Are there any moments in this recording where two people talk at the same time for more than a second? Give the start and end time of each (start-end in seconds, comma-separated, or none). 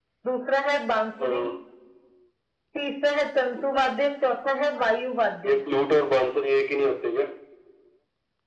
none